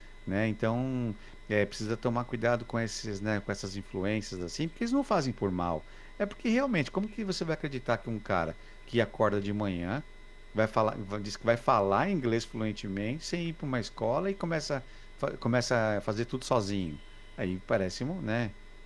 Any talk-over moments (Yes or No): No